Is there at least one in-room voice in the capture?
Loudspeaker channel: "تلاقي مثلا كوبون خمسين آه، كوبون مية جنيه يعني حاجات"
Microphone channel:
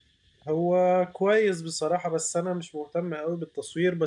Yes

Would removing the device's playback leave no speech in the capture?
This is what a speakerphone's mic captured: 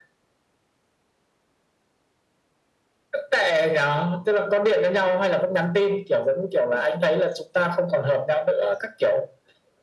Yes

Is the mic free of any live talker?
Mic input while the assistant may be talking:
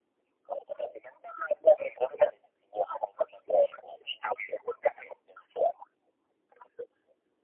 Yes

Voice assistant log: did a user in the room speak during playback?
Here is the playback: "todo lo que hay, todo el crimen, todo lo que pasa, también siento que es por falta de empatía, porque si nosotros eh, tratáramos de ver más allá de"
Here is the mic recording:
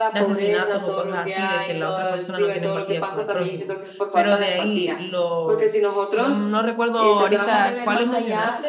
Yes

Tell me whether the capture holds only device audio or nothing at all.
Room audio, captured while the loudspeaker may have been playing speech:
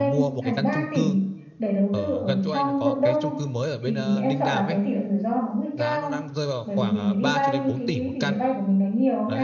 No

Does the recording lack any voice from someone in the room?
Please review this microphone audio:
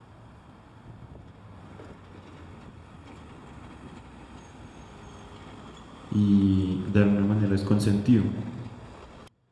No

